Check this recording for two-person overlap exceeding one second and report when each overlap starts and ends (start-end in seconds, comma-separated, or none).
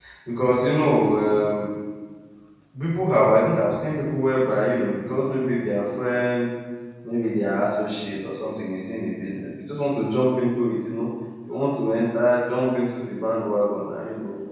none